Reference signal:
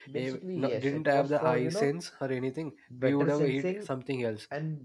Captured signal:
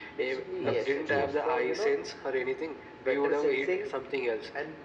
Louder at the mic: echo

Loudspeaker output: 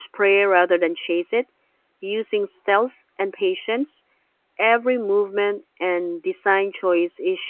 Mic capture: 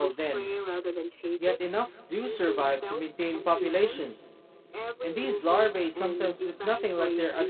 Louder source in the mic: user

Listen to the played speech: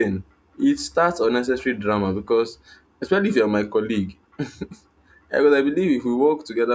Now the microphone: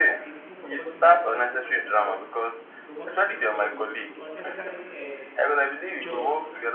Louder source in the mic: echo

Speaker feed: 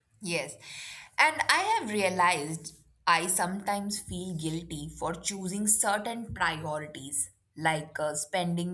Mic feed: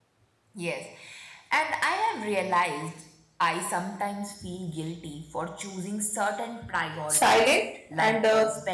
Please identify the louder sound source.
user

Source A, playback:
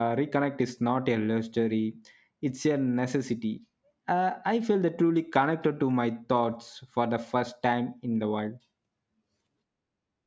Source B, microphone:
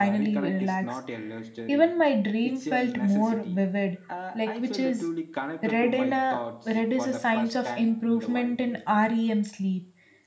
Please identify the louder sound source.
user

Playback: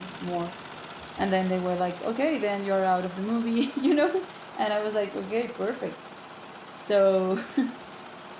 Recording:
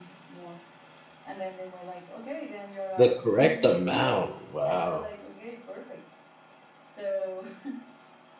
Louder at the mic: user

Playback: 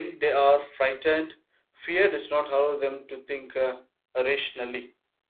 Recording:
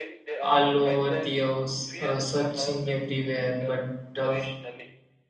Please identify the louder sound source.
user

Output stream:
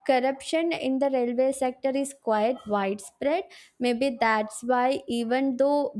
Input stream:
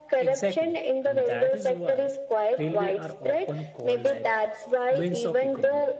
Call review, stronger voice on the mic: echo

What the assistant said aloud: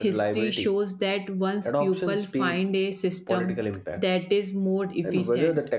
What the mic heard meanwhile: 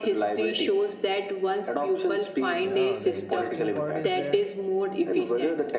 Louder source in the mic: echo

